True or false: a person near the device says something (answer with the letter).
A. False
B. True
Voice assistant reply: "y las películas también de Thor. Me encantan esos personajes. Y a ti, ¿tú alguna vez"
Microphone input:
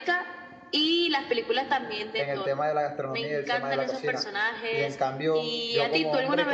B